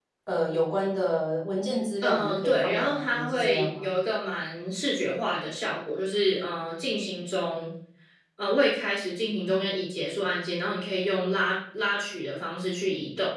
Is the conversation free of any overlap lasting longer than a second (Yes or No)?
No